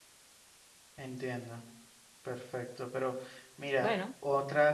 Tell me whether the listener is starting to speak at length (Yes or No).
No